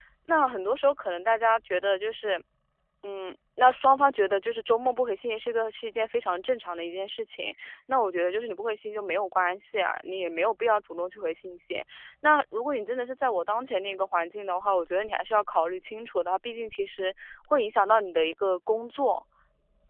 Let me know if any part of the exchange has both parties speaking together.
No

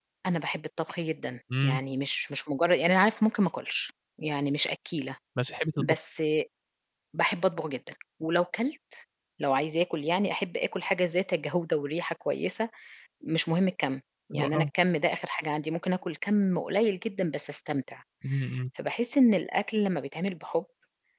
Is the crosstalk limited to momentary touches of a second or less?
Yes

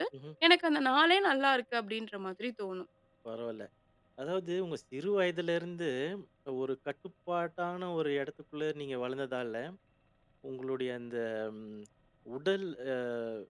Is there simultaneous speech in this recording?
No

